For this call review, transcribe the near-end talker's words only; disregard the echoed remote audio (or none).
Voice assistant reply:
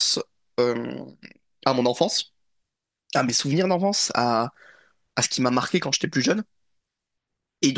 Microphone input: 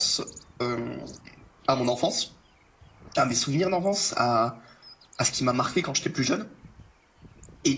none